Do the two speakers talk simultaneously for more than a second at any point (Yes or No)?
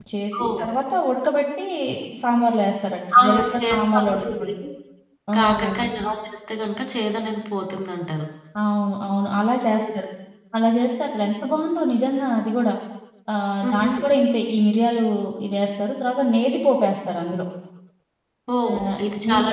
Yes